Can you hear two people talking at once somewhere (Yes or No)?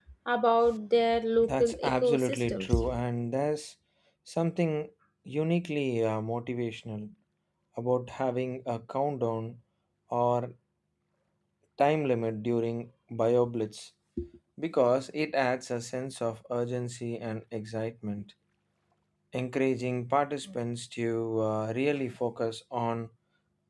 Yes